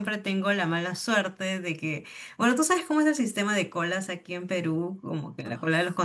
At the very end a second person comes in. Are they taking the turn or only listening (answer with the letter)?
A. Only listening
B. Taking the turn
A